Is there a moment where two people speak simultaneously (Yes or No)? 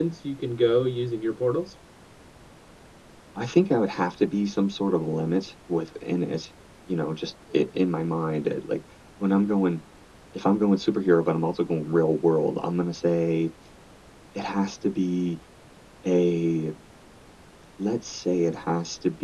No